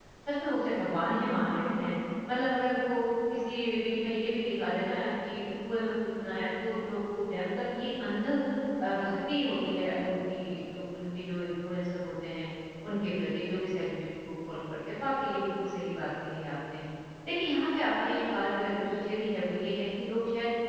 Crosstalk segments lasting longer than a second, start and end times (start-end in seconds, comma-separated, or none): none